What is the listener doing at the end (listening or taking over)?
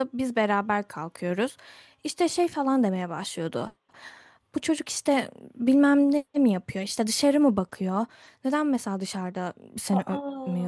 listening